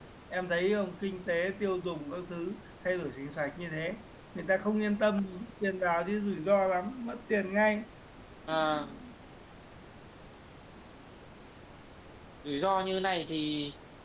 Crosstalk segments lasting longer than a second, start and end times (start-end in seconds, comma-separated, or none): none